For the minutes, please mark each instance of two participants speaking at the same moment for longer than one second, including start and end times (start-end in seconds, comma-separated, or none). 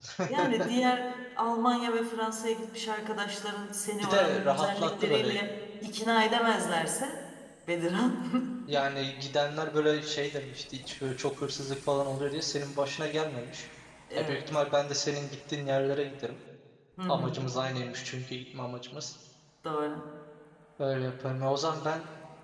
4.0-5.4